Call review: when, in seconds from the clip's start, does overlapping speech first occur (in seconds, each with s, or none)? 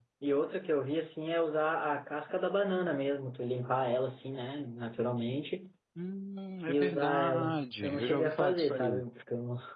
6.7 s